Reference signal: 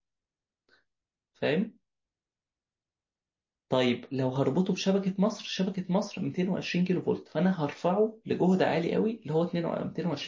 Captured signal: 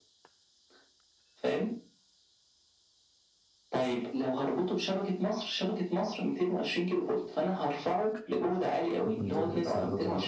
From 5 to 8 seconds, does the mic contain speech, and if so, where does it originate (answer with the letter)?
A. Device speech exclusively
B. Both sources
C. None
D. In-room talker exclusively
A